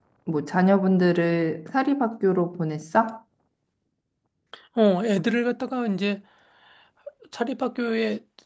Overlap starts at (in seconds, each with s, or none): none